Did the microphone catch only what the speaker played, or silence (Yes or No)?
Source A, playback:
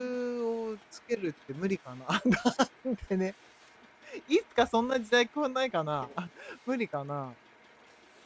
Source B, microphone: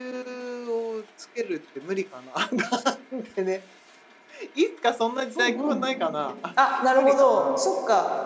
No